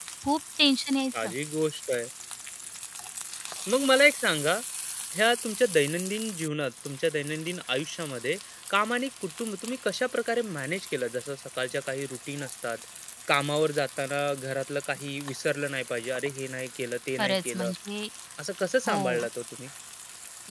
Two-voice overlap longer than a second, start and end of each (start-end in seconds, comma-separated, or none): none